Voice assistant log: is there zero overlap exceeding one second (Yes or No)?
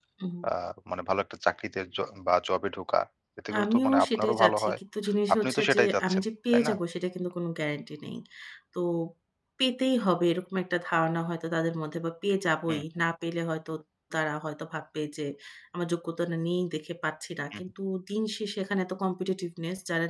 No